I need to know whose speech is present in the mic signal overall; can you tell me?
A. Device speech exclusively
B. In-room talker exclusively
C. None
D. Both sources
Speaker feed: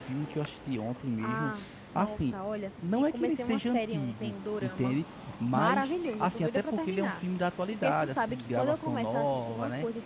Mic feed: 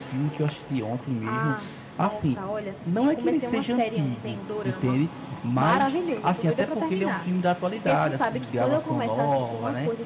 A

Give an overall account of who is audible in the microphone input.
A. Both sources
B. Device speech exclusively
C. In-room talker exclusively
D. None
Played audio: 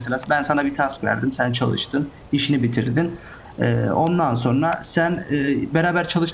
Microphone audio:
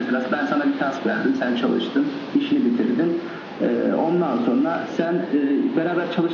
B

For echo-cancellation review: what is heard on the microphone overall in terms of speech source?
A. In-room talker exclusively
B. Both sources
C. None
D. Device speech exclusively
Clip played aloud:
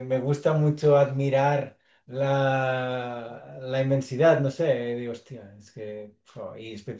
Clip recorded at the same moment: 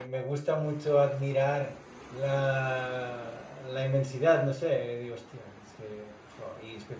D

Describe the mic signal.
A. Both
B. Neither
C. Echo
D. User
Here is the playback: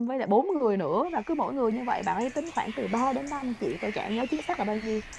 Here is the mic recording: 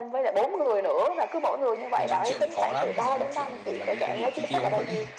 A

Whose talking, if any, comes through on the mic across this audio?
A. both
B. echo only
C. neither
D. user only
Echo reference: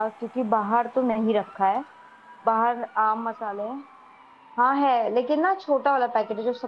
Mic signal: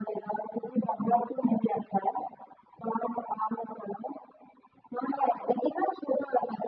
B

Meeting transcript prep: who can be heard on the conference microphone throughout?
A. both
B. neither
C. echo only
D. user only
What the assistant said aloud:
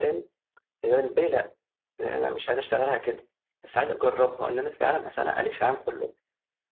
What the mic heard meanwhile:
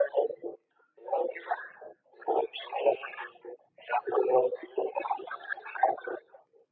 C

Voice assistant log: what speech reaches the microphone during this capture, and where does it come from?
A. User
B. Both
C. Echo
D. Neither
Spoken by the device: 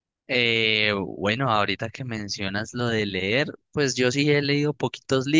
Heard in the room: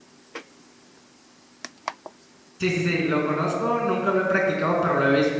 A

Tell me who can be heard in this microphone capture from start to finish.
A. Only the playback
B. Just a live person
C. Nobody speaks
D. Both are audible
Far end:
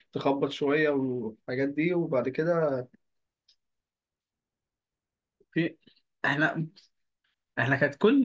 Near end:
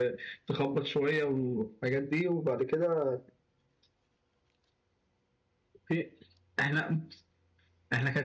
A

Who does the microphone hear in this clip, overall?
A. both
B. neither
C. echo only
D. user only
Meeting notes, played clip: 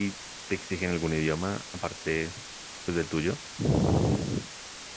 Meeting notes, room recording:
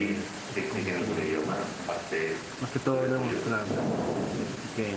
A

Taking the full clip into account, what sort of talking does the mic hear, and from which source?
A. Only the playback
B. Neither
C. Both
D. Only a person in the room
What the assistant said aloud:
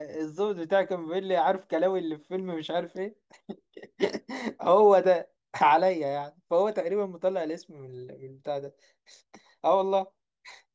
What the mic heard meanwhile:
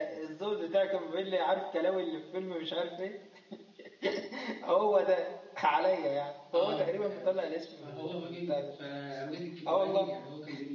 C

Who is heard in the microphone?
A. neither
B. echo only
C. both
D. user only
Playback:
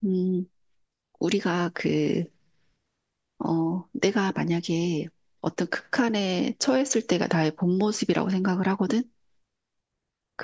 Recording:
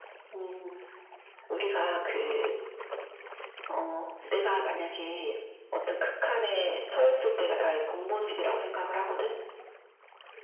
B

